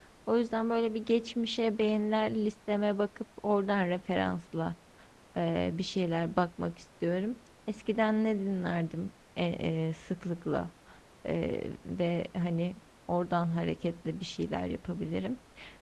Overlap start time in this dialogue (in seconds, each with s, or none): none